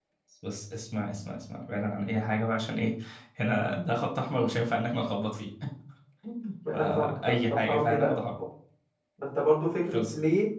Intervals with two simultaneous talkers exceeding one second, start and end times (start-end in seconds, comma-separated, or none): 6.7-8.1